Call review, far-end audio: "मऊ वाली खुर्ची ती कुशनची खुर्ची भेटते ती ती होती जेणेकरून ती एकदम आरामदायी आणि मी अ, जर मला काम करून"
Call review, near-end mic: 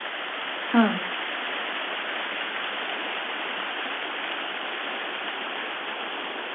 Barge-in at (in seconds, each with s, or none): 0.7 s